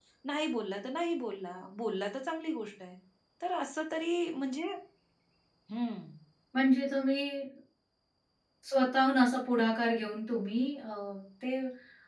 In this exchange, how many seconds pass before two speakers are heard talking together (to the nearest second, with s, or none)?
none